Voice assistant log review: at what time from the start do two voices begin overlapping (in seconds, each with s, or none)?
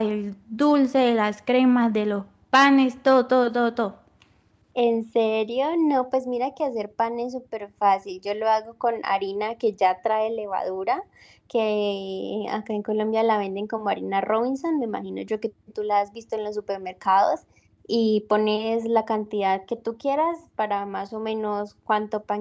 none